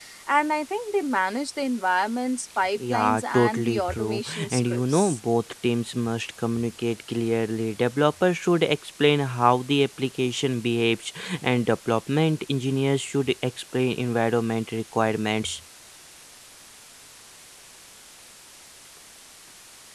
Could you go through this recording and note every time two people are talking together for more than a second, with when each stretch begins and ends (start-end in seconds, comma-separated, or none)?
2.8-5.2